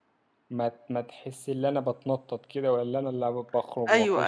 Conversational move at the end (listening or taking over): taking over